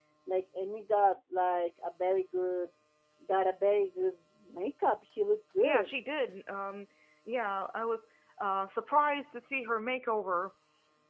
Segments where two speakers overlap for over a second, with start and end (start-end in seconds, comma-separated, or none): none